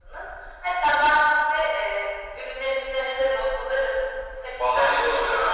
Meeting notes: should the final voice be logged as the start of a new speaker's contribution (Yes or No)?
Yes